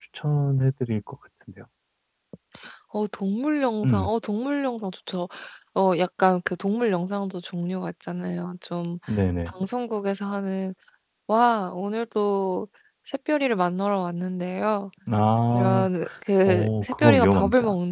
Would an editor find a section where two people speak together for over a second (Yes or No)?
Yes